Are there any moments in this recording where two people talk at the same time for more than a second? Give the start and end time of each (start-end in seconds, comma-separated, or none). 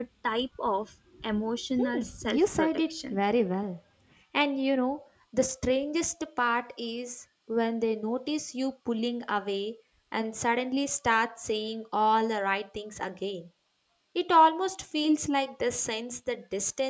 1.8-3.2